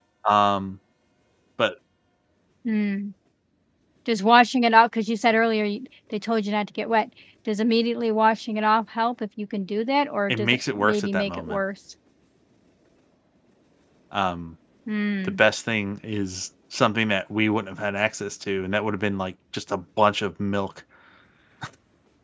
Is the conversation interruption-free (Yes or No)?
No